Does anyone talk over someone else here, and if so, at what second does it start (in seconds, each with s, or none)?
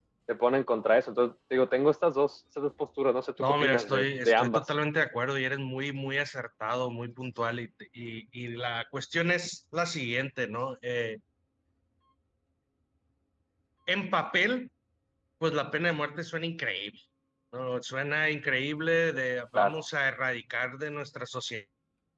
3.4 s